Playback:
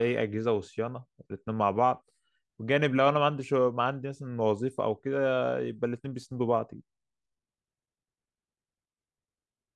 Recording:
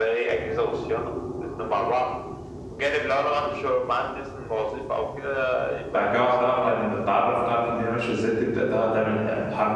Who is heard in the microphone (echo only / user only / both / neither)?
both